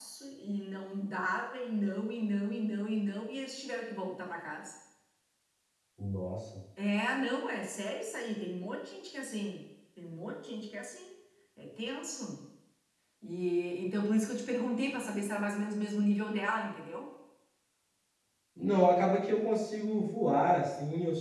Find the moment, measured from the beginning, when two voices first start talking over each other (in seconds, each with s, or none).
none